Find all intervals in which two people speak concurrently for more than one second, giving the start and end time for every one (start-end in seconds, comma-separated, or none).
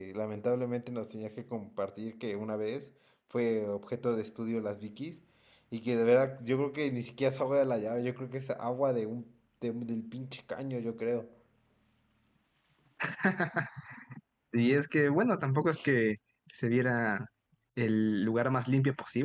none